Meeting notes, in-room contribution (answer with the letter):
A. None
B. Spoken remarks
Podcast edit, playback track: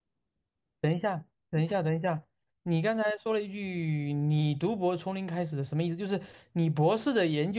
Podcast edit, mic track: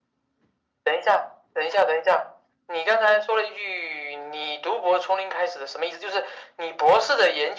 A